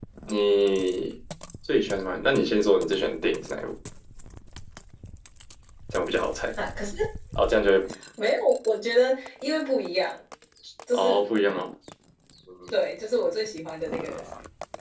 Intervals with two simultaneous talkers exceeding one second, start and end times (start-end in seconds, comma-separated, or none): none